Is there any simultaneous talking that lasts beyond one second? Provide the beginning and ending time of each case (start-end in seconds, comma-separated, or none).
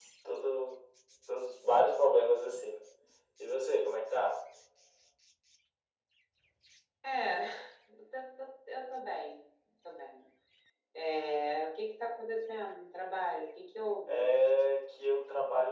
none